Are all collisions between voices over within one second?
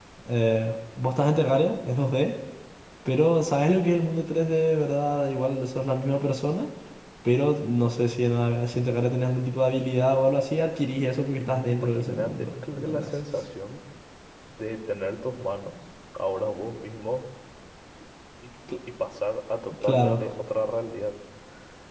No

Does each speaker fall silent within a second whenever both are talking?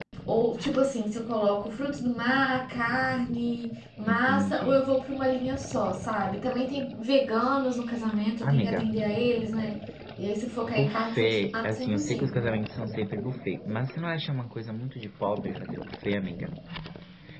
No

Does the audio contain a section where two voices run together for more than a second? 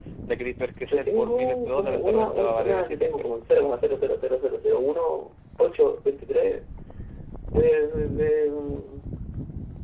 Yes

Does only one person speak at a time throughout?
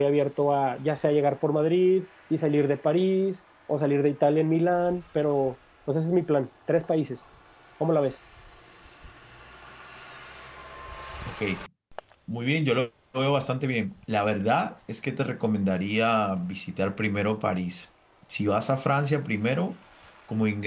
Yes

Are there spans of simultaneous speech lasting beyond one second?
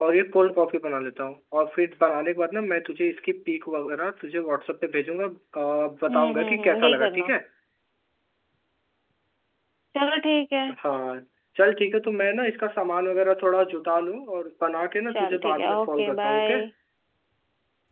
Yes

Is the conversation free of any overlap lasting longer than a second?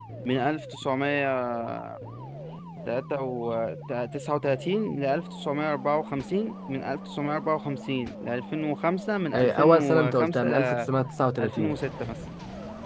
No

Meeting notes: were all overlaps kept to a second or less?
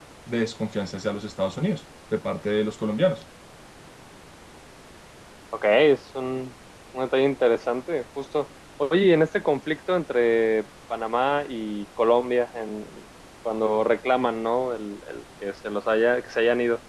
Yes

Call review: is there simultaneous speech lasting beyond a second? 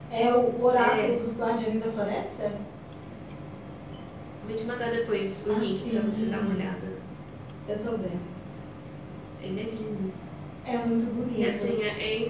Yes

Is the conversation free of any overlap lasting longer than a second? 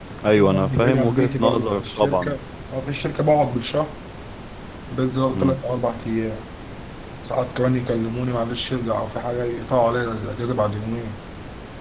No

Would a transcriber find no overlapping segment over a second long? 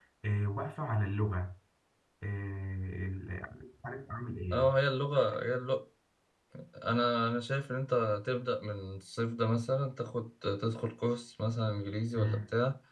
Yes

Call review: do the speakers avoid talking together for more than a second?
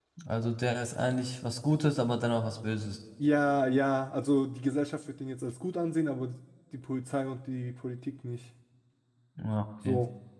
Yes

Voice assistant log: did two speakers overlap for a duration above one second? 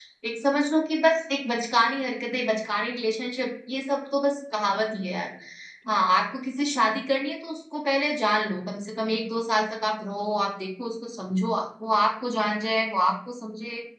No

